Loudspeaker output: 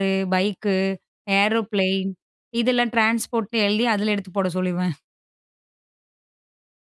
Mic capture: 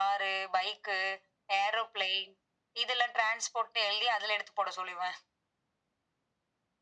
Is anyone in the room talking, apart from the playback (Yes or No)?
No